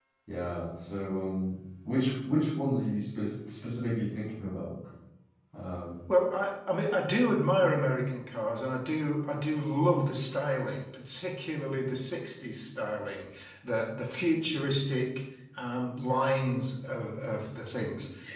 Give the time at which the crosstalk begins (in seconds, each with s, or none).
none